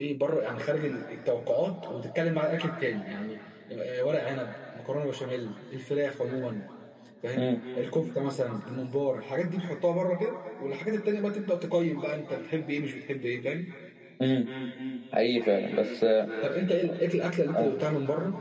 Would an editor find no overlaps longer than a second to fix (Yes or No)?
Yes